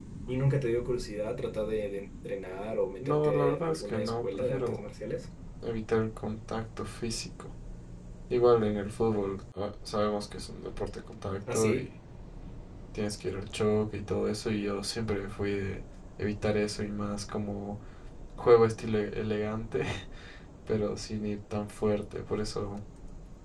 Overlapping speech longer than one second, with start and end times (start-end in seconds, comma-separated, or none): 3.0-4.9